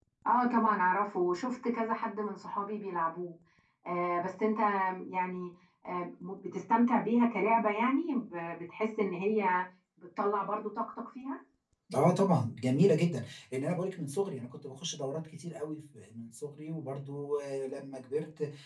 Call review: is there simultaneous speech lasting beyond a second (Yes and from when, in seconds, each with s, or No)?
No